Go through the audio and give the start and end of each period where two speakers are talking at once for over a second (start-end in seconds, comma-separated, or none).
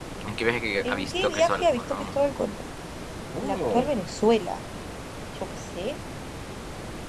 0.8-2.1